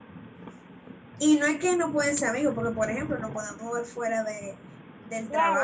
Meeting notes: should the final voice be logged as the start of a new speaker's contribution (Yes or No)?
Yes